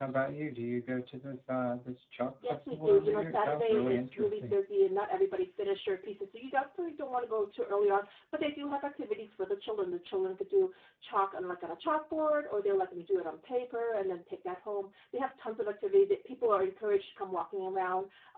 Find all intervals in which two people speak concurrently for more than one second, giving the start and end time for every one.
2.5-4.6

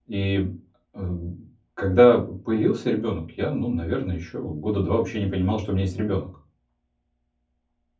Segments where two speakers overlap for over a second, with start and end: none

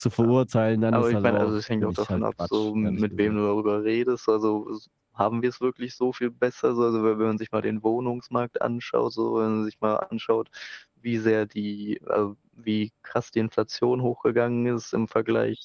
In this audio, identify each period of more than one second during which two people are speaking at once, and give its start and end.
0.9-3.4

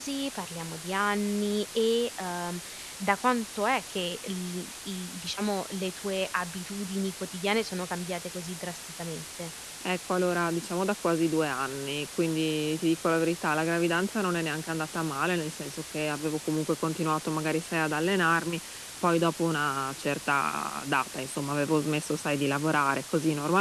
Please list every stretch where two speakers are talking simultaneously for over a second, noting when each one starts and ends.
none

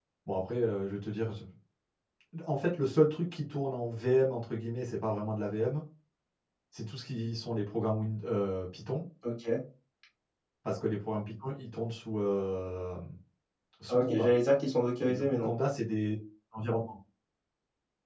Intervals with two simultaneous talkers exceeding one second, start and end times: none

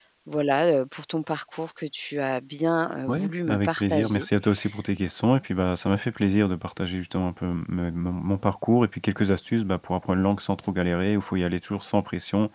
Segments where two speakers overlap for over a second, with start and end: 3.1-4.3

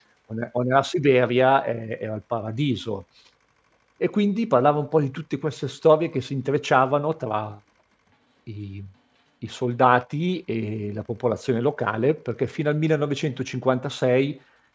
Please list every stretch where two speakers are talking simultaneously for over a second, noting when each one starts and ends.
none

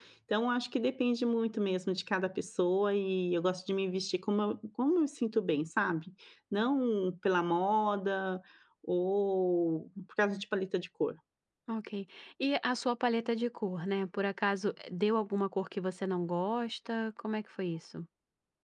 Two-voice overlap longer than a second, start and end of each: none

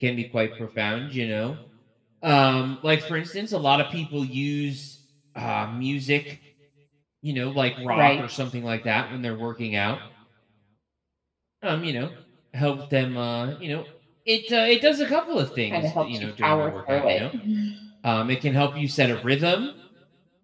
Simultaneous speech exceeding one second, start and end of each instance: 15.7-17.2

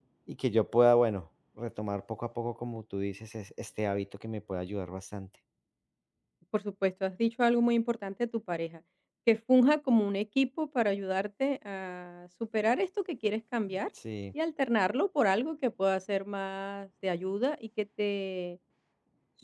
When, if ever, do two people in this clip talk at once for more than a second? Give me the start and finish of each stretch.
none

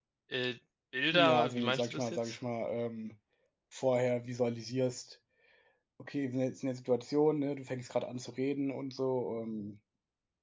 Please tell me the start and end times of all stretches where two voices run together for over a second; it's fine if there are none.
1.1-2.4

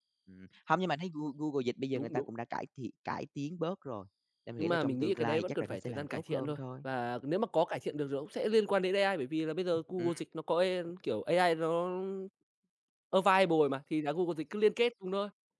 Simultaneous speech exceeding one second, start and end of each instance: 4.6-6.6

